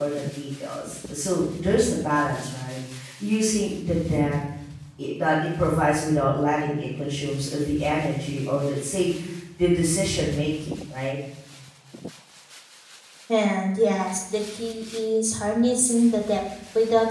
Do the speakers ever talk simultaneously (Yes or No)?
No